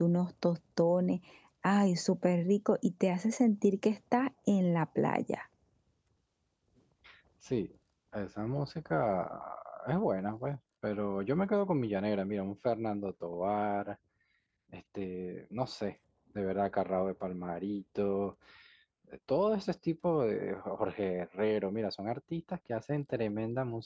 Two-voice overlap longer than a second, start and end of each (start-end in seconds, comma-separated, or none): none